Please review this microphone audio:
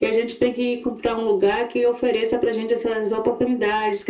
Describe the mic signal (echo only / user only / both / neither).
echo only